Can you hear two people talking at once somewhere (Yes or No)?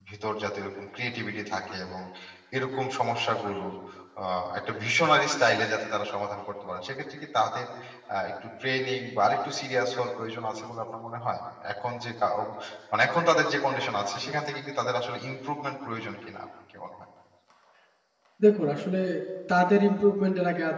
No